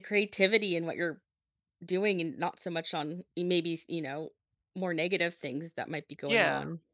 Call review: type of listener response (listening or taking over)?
taking over